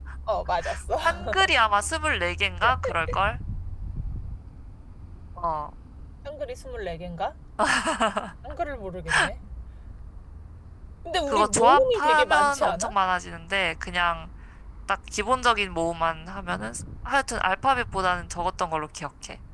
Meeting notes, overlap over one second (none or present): present